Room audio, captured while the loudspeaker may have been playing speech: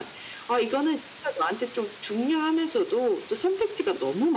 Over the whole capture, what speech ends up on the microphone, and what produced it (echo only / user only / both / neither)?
echo only